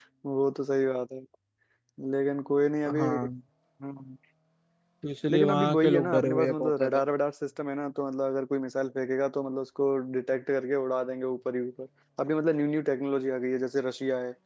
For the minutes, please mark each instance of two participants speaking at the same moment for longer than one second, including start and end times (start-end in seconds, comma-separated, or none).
5.3-7.0